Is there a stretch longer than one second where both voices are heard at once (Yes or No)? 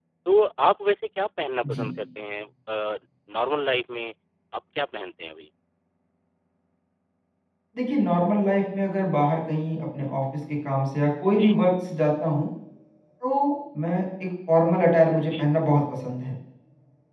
No